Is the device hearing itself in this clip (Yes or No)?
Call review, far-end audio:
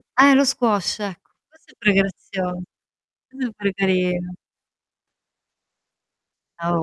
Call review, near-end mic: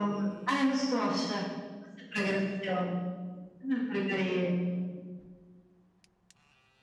Yes